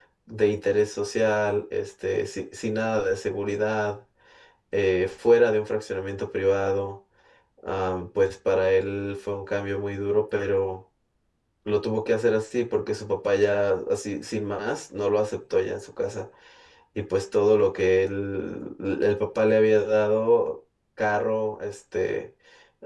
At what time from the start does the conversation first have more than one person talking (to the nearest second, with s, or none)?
none